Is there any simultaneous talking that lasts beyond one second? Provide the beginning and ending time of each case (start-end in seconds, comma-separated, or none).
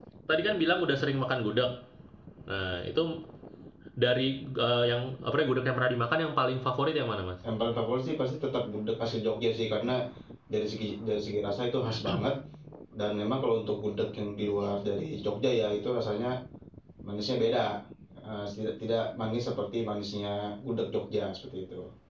none